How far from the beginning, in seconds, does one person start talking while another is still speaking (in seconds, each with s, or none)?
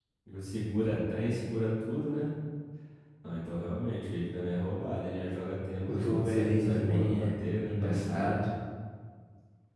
5.9 s